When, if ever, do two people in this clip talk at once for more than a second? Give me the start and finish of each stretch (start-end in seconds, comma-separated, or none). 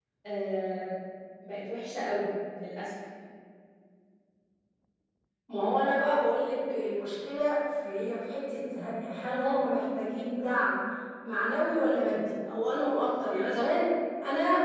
none